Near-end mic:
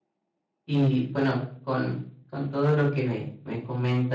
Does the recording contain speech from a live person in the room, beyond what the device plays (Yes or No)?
Yes